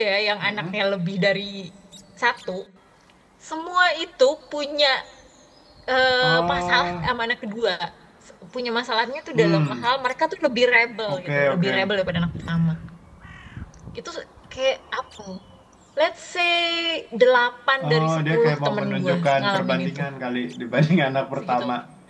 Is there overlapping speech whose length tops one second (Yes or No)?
Yes